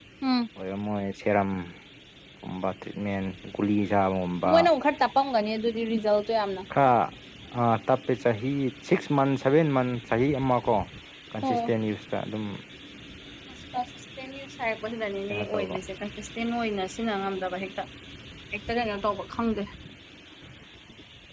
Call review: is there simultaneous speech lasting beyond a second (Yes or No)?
No